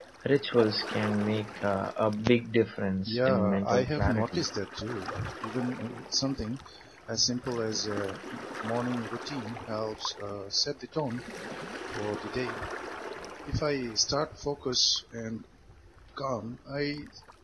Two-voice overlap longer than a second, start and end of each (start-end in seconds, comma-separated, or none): 3.1-4.5